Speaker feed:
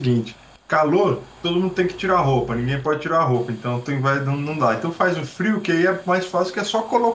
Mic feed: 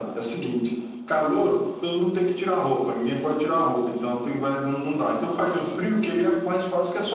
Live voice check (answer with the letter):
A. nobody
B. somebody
A